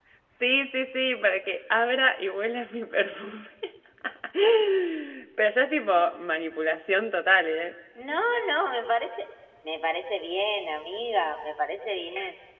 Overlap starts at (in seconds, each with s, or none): none